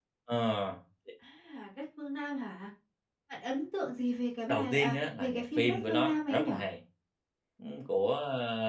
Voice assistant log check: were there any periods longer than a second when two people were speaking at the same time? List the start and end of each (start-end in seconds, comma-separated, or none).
4.5-6.5